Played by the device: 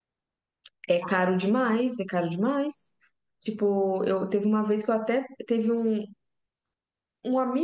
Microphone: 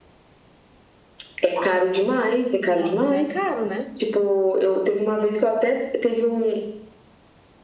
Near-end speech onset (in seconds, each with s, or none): 2.7 s